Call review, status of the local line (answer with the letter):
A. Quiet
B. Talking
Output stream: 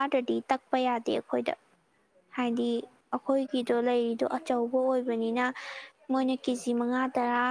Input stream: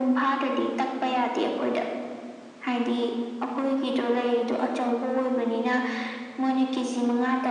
A